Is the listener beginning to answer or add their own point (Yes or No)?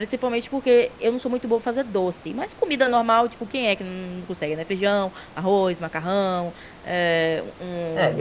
Yes